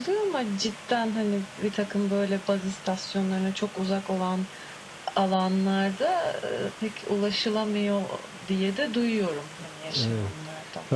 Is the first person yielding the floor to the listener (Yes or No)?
Yes